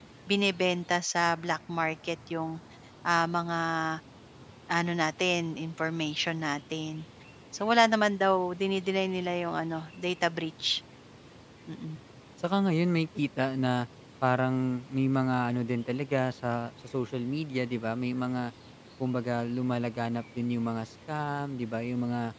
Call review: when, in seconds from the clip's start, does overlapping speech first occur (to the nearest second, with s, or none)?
none